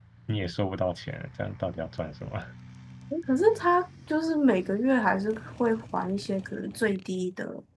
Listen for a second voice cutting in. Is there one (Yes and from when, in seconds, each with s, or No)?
No